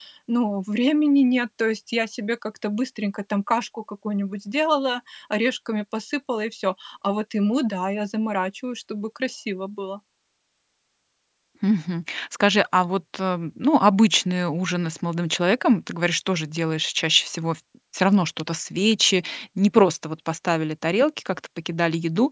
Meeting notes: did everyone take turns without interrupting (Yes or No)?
Yes